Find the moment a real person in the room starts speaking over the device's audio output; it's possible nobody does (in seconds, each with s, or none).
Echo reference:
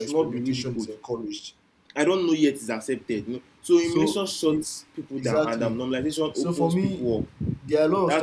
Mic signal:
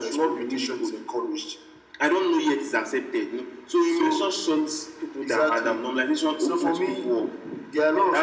none